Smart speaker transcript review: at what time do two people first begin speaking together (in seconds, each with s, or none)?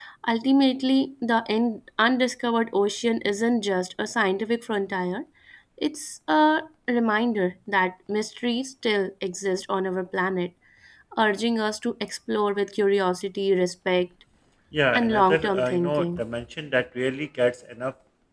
14.9 s